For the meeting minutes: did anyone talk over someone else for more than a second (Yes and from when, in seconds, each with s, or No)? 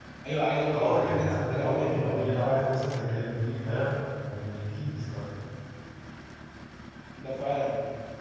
Yes, from 0.7 s